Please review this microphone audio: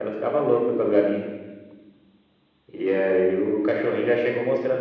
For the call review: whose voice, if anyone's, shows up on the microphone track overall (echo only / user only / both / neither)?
echo only